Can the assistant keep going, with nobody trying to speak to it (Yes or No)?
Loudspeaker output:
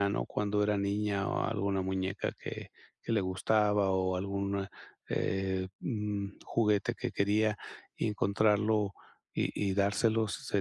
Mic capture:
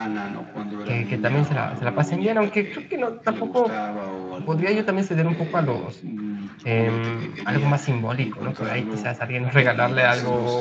No